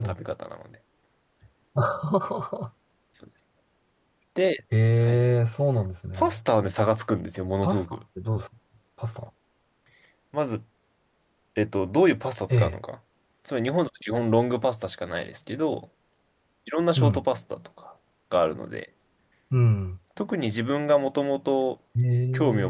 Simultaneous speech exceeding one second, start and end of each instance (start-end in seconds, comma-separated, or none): none